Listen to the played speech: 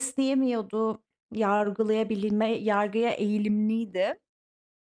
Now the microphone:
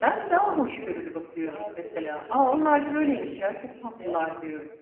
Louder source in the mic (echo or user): user